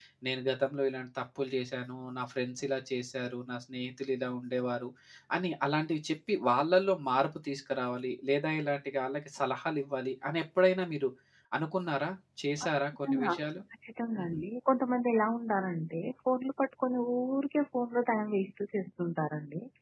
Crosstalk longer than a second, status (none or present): none